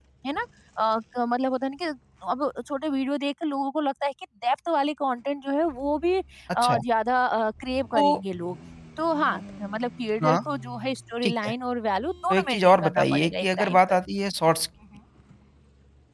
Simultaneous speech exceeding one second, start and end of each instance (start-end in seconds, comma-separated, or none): 12.3-14.0